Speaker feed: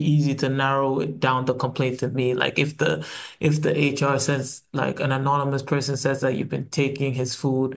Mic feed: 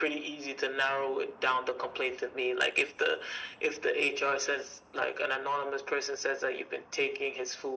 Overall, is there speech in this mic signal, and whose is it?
echo only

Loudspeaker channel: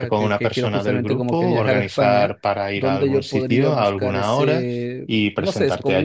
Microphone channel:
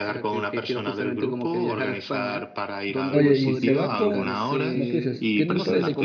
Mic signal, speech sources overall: both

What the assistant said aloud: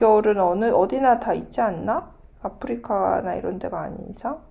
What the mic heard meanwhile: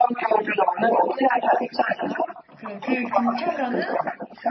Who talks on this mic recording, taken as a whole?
both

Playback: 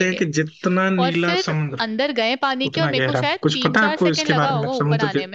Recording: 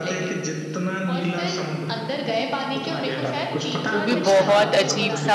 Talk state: both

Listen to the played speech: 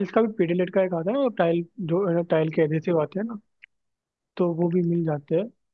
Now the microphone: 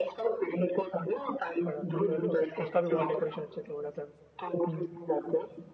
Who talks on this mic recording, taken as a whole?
both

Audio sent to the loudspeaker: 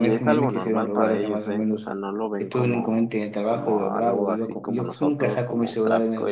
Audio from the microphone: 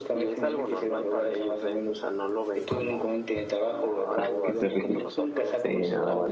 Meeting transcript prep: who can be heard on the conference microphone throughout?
both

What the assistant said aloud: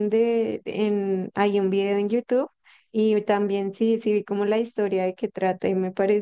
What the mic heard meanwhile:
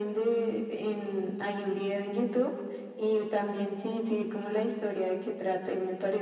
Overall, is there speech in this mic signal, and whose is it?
echo only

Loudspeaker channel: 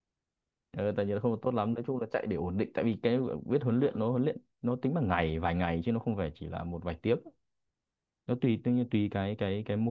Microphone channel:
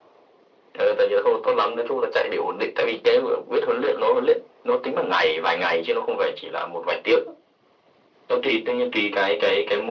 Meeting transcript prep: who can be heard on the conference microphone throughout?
echo only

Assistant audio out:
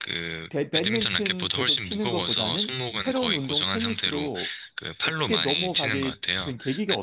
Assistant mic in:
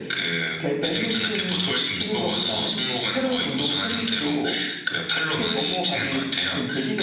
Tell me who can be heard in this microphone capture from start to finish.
echo only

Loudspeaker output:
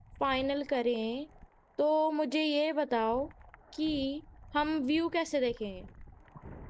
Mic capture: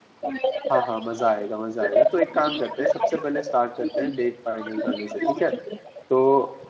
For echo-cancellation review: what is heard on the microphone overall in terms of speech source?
both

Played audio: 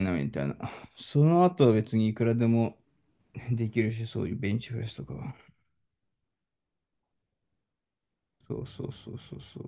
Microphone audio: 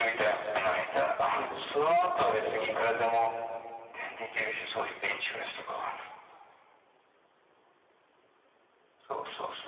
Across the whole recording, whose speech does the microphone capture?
both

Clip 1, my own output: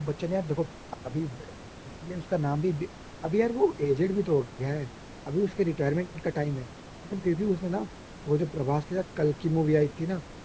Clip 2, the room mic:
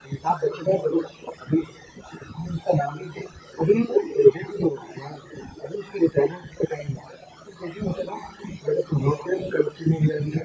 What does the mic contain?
echo only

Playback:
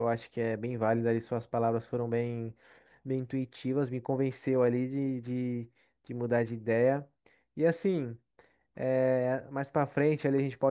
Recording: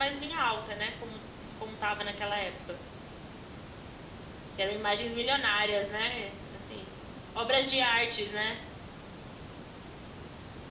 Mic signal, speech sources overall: user only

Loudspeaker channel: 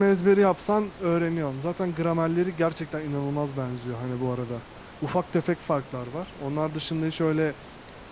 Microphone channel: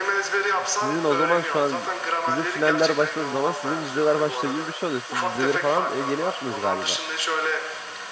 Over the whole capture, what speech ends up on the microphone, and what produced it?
both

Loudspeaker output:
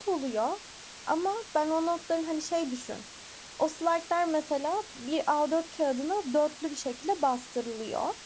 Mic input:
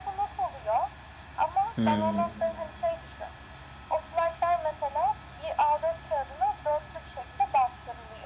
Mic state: both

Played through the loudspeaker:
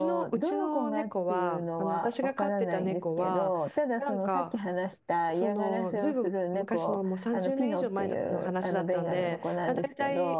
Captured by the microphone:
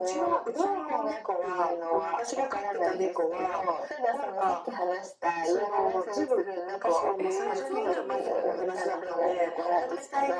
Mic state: both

